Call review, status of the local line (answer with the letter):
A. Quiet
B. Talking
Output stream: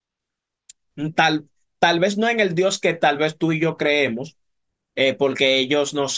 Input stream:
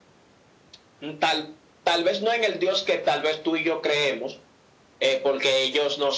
A